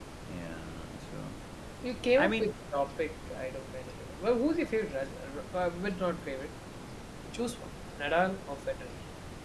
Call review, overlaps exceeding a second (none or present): none